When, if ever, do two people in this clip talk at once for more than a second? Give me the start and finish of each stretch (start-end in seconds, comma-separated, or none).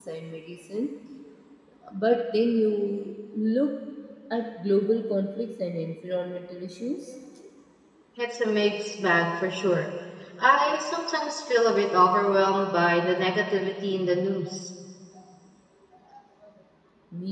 none